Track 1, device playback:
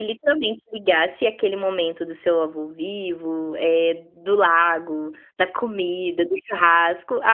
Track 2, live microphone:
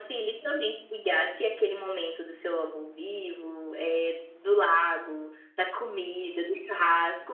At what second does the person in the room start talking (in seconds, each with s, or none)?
none